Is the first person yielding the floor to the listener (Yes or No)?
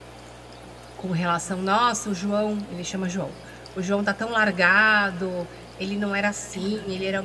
No